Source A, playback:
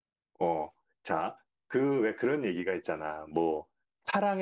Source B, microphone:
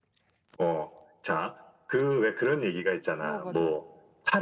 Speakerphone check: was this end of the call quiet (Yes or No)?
No